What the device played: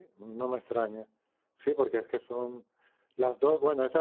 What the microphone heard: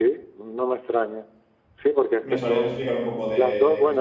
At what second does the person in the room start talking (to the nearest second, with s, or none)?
2 s